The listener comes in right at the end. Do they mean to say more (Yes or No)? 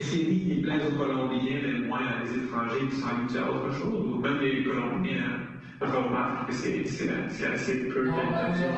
Yes